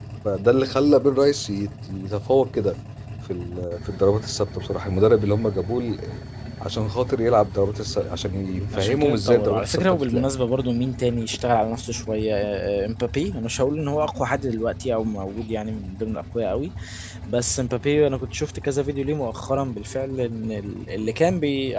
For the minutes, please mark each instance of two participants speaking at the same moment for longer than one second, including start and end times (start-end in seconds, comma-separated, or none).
8.7-10.3